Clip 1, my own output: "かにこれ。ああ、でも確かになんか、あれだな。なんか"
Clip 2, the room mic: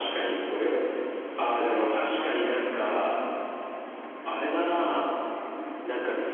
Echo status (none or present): present